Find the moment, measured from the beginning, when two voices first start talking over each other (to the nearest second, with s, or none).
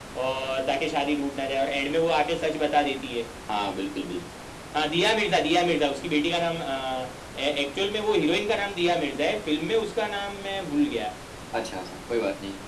none